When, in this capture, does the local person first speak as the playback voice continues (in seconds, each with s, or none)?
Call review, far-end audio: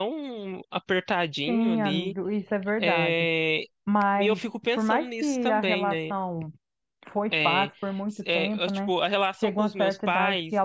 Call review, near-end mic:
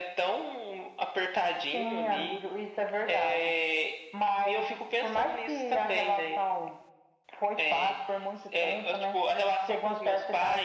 none